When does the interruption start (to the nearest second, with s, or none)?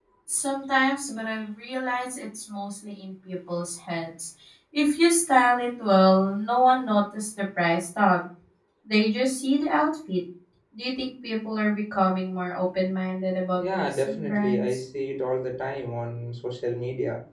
14 s